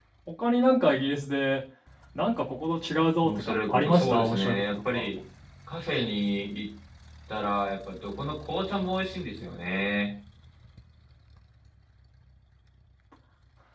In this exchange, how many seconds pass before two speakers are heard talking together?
3.2 s

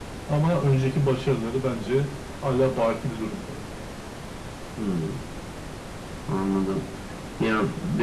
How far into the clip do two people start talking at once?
none

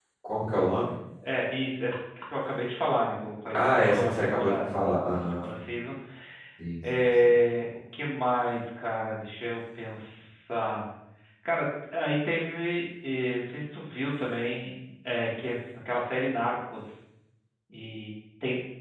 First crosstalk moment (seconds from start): 3.8 s

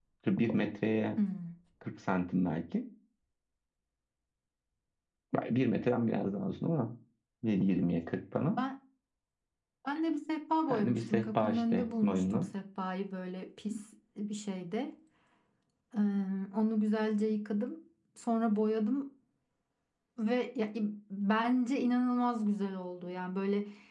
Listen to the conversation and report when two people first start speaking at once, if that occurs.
10.7 s

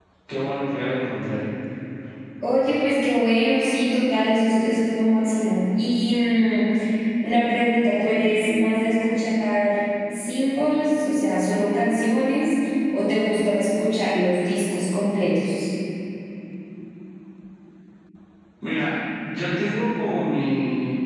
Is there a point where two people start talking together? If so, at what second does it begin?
none

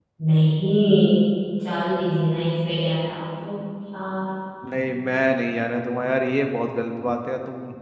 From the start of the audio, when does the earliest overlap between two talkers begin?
none

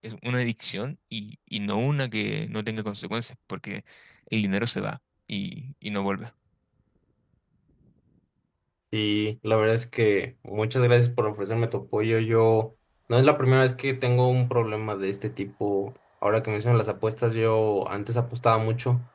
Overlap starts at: none

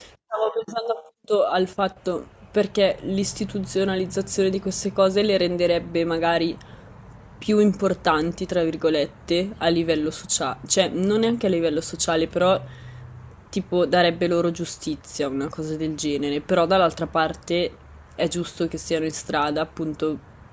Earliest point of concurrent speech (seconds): none

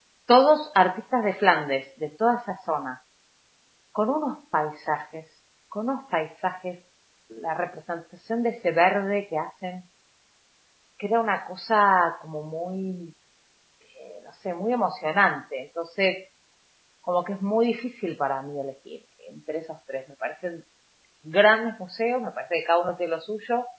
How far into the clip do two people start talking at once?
none

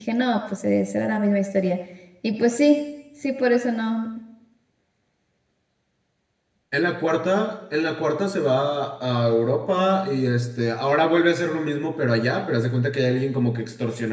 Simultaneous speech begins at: none

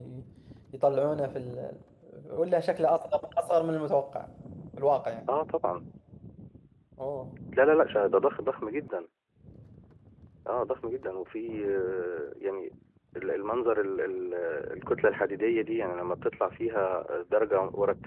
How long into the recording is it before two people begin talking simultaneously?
none

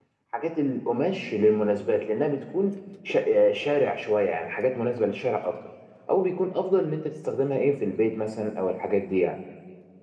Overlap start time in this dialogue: none

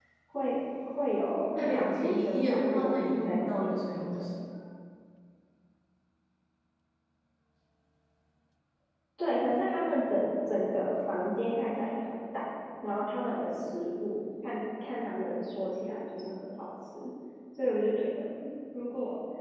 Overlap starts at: 1.3 s

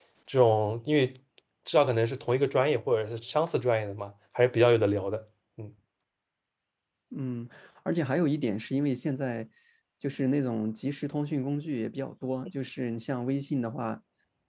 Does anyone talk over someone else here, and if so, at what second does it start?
none

